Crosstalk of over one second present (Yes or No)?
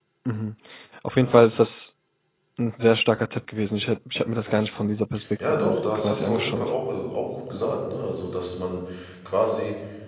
Yes